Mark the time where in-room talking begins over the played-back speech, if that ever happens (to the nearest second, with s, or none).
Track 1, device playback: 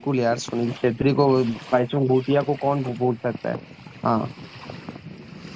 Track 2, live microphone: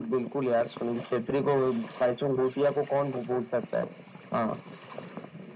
none